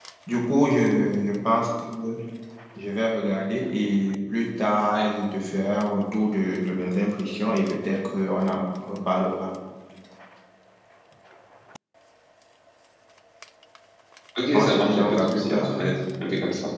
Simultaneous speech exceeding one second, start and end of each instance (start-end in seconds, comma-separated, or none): 14.5-15.8